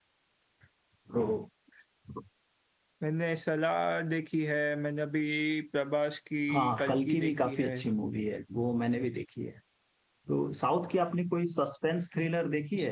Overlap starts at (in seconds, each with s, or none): 6.5 s